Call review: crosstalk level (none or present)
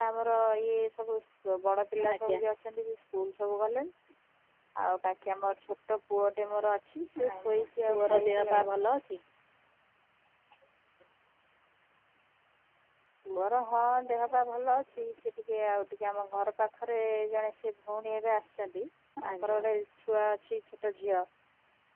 present